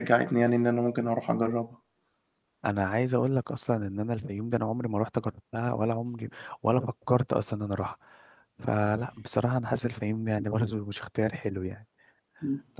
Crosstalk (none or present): none